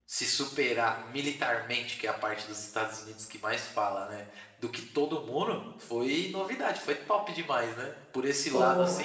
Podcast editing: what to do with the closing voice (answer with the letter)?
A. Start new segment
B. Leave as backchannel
B